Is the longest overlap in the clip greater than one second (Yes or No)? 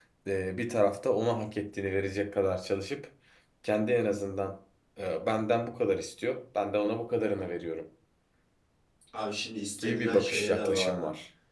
Yes